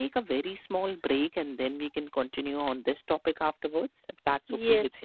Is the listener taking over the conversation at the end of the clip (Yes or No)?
Yes